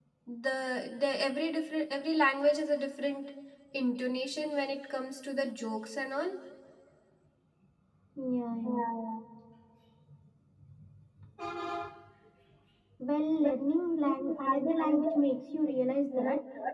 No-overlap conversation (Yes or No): No